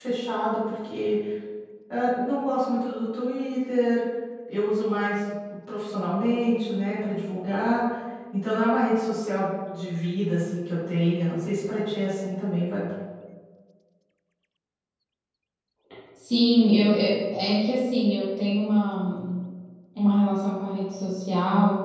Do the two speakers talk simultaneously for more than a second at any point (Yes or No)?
No